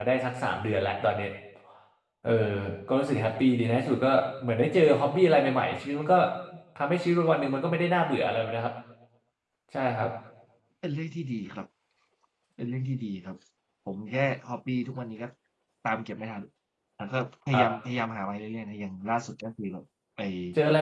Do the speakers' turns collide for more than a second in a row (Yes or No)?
No